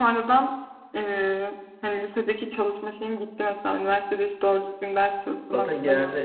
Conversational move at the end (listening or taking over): taking over